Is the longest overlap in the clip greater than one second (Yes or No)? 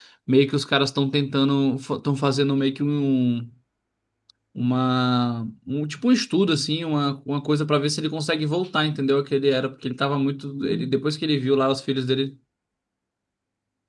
No